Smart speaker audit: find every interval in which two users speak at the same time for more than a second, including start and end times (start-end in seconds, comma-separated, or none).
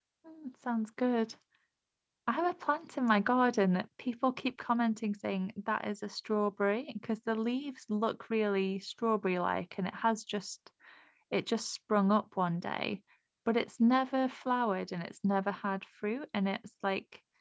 none